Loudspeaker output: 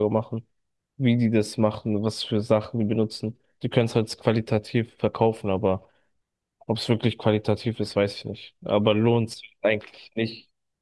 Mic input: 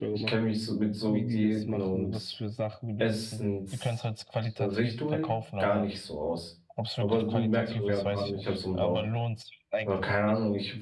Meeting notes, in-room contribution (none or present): present